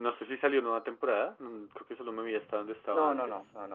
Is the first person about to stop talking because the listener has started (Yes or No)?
Yes